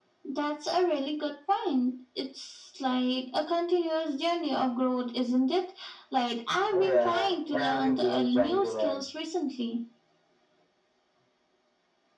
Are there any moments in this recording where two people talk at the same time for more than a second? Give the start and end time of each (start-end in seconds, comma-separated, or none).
6.7-9.1